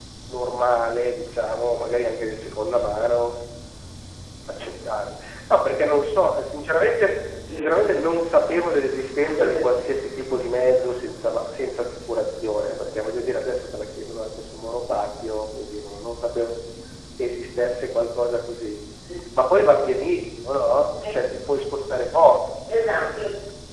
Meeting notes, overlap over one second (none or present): none